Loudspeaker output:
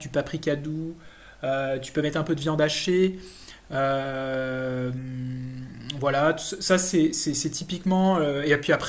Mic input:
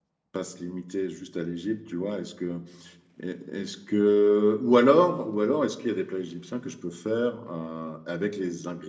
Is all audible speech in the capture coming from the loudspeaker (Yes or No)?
No